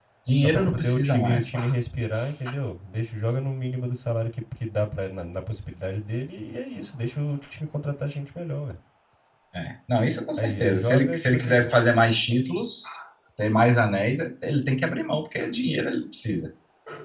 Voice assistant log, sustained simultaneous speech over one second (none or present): present